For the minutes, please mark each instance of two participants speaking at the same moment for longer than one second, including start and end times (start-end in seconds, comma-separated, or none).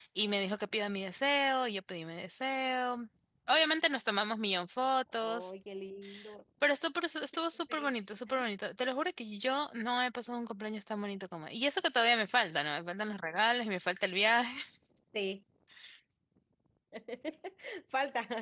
none